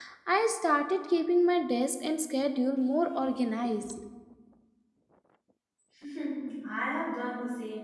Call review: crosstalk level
none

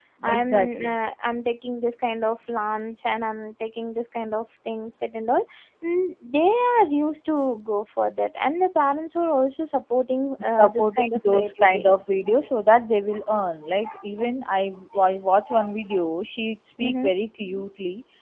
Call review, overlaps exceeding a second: present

